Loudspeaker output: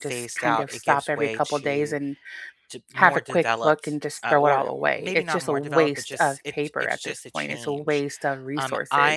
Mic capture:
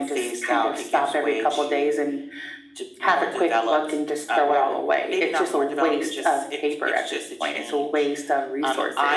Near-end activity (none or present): none